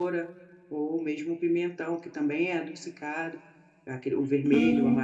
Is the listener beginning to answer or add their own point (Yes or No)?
No